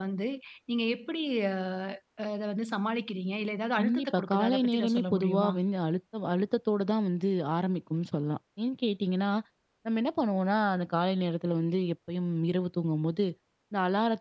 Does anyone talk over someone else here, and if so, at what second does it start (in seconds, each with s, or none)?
3.8 s